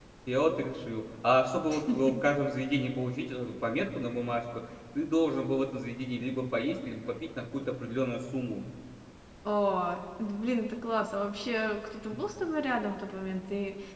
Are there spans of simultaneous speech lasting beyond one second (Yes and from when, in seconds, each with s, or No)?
No